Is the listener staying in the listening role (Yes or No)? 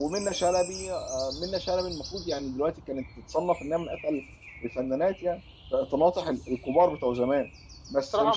No